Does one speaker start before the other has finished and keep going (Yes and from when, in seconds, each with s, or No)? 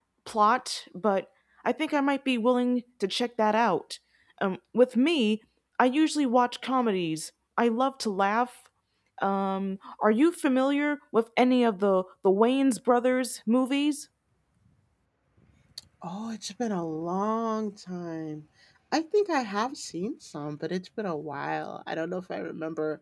No